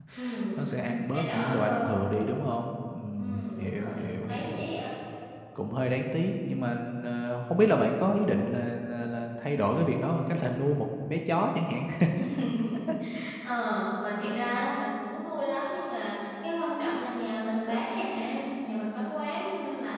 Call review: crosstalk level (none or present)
present